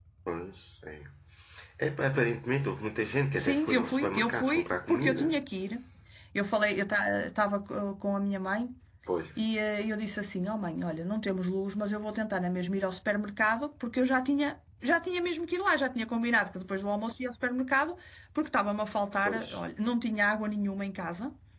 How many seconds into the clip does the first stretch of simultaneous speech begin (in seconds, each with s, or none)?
3.4 s